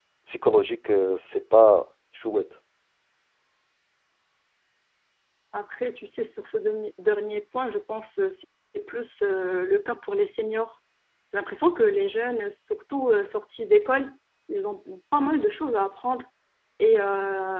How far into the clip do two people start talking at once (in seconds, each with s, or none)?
none